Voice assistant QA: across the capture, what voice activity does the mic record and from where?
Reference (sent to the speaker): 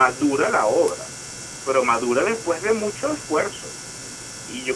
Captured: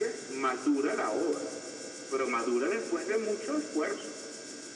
echo only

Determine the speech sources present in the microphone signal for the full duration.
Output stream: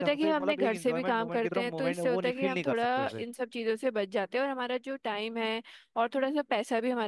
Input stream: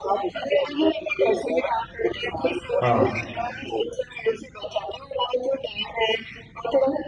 both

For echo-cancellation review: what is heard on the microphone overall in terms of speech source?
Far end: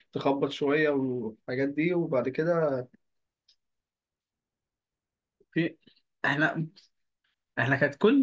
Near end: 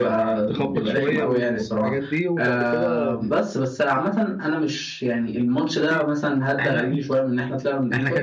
both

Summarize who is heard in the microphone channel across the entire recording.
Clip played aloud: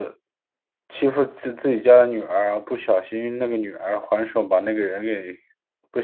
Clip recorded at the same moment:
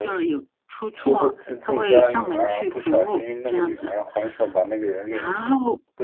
both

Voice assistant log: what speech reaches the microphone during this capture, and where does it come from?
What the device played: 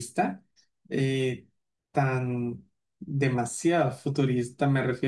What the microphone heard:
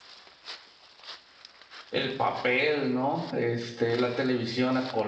user only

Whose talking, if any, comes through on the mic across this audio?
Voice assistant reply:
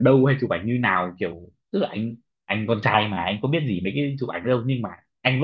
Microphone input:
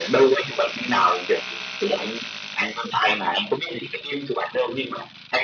echo only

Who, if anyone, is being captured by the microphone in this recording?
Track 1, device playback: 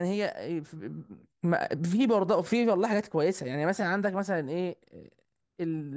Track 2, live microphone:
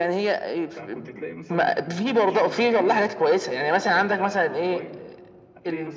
both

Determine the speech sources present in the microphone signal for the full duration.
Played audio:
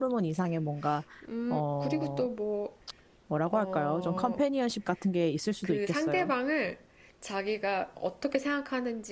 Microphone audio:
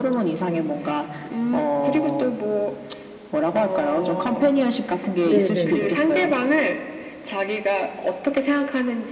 both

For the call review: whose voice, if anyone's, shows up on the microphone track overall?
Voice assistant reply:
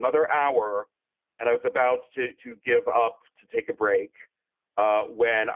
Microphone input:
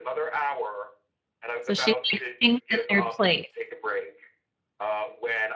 both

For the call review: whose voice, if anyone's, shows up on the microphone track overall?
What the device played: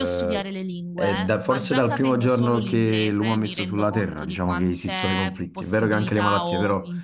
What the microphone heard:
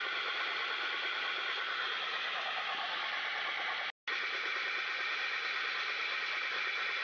neither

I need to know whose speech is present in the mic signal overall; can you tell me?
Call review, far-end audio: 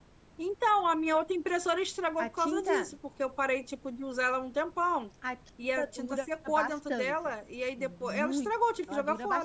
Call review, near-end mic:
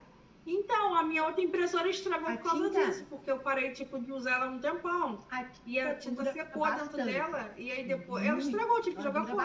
echo only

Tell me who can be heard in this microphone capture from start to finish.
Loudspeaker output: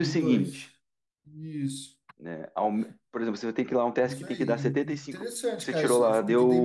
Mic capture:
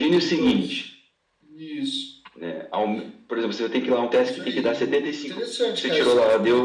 echo only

